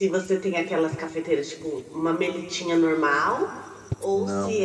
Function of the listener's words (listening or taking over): listening